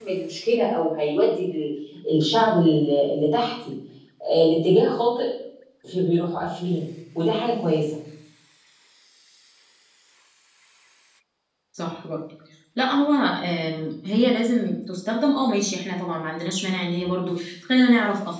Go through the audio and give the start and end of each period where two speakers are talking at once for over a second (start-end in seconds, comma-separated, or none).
none